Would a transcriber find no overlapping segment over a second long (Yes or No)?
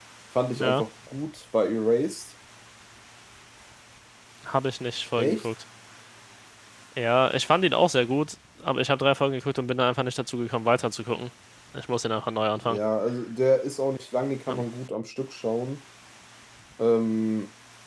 Yes